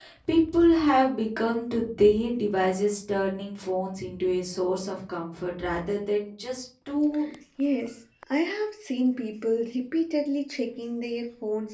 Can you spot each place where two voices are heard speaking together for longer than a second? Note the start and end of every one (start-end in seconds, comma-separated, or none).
none